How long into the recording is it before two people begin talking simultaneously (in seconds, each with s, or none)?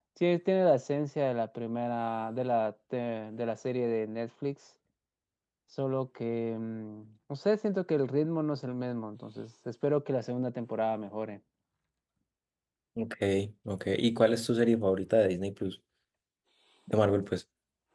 none